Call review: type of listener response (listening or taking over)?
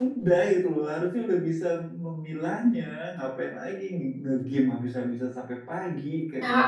taking over